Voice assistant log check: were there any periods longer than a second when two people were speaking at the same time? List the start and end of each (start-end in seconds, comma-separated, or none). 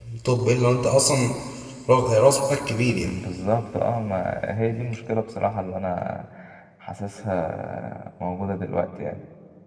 none